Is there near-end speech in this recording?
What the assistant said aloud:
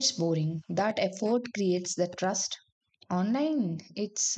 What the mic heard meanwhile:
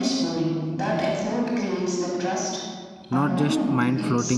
Yes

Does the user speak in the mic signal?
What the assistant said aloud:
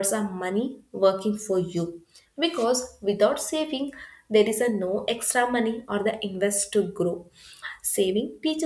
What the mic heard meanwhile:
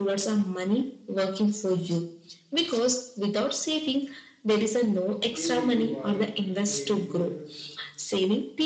Yes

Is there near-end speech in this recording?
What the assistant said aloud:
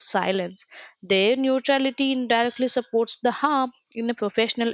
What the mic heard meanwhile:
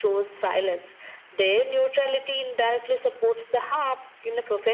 No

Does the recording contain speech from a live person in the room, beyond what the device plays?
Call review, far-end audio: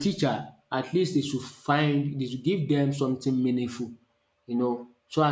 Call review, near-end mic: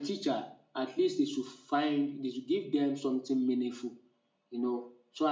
No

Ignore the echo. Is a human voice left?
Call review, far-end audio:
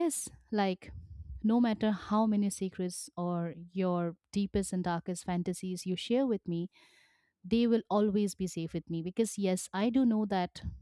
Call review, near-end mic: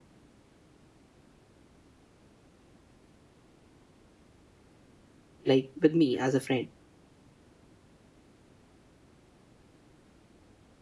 Yes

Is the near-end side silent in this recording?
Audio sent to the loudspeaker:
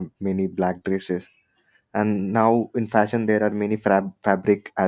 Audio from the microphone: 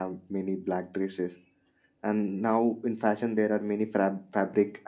Yes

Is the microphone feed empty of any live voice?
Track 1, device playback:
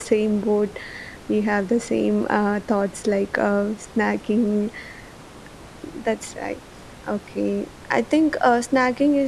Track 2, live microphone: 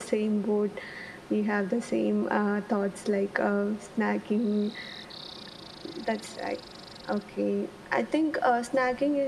Yes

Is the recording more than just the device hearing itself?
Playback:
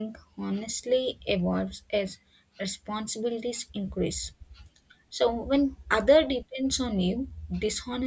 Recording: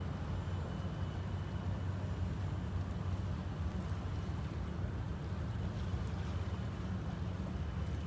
No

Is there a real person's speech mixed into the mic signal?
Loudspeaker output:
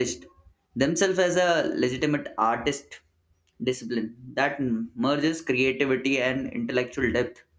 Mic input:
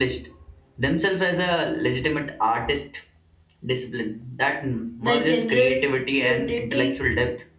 Yes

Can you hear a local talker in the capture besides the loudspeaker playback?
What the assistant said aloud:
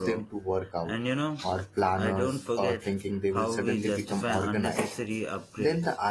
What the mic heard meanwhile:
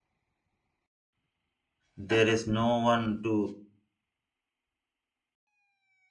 Yes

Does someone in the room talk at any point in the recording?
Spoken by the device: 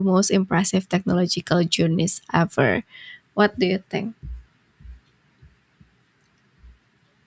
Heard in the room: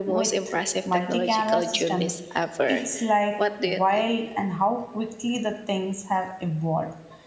Yes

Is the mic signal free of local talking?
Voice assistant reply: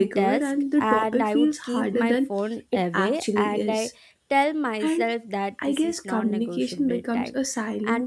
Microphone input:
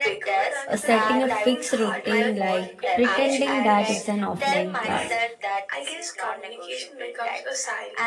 No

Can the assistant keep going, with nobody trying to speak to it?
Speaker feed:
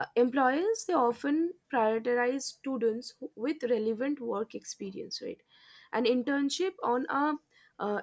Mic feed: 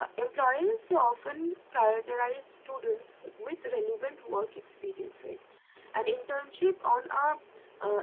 Yes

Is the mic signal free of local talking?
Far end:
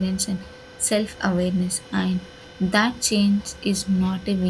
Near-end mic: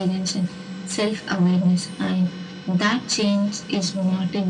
Yes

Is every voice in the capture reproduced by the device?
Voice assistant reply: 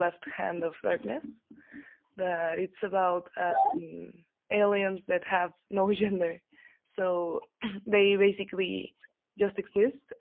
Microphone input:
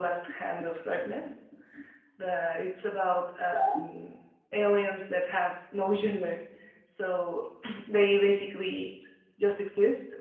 Yes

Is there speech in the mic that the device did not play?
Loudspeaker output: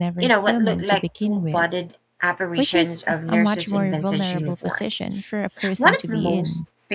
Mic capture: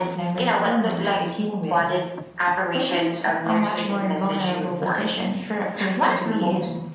No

